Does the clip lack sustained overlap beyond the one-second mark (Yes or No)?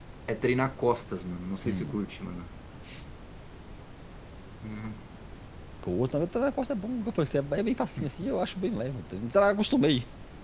Yes